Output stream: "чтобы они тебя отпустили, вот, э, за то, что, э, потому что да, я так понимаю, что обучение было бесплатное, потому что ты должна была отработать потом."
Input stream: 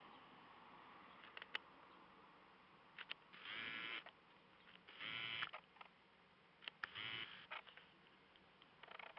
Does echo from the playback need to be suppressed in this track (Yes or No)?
No